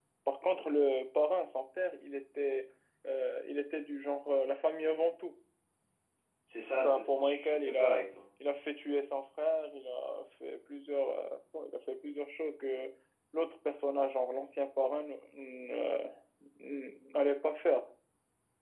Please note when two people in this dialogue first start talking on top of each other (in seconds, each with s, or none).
6.8 s